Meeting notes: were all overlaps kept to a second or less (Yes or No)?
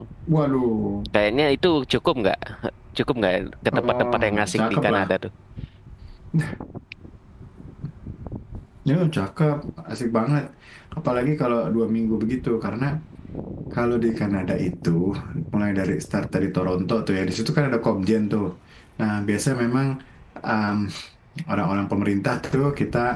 No